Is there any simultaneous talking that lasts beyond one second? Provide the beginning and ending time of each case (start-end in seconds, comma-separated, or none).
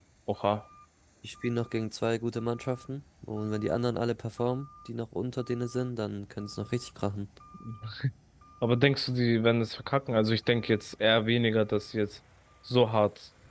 none